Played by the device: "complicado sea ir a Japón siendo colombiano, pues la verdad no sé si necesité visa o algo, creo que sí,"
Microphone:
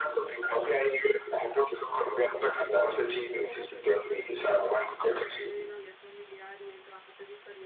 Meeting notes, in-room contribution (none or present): present